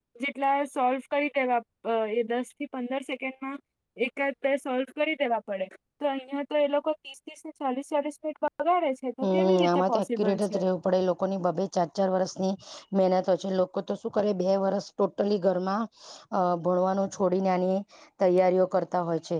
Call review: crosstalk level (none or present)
present